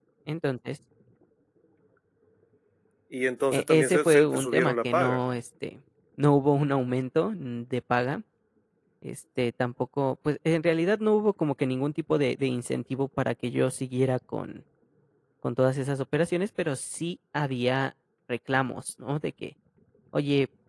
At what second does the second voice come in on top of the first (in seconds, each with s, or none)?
3.5 s